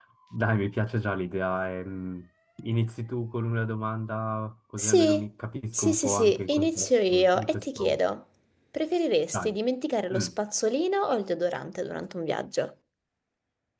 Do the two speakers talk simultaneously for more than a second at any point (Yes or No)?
Yes